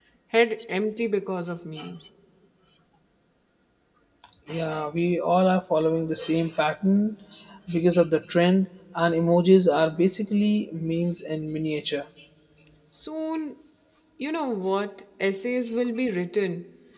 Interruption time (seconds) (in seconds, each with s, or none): none